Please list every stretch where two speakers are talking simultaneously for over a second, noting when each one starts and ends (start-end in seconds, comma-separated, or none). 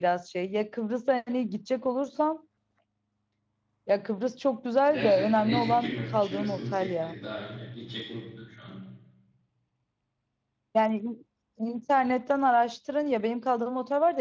4.9-7.1